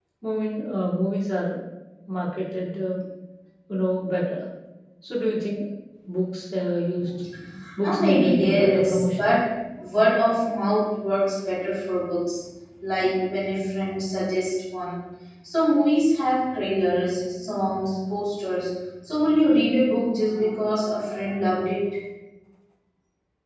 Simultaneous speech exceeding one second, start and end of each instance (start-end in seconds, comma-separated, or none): 7.8-9.3